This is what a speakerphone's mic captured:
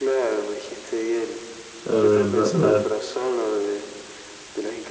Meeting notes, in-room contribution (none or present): present